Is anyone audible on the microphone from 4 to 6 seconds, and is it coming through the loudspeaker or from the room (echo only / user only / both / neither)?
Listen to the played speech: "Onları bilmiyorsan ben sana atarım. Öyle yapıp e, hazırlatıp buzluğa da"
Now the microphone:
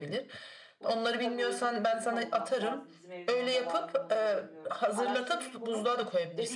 both